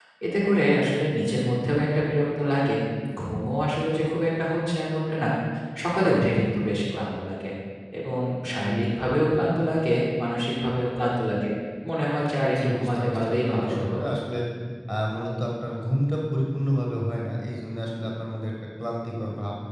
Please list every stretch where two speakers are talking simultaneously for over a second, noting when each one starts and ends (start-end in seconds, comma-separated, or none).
12.6-14.0